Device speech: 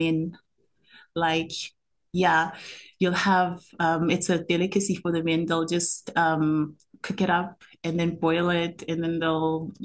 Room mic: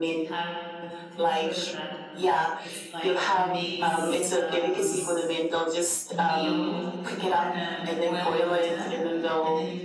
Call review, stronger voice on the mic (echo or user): echo